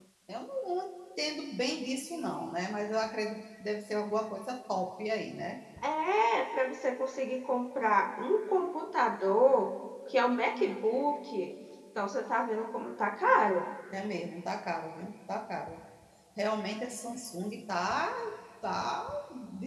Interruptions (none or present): none